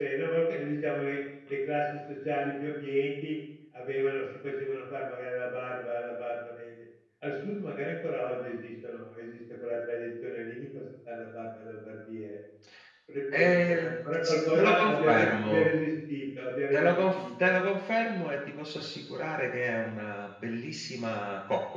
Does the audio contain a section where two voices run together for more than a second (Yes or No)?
Yes